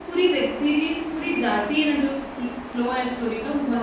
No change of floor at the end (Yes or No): No